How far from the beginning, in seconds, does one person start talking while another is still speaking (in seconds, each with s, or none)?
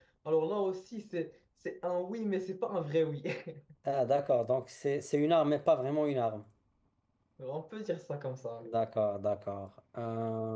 none